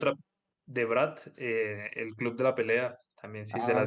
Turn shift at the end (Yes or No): Yes